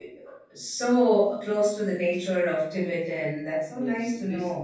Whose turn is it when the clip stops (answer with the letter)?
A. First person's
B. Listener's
B